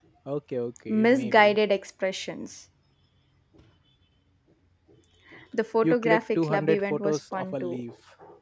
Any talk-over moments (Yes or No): Yes